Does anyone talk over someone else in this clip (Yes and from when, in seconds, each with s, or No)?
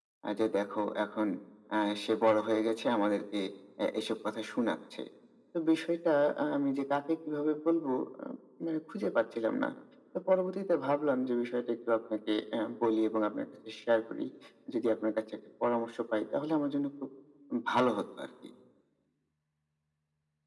No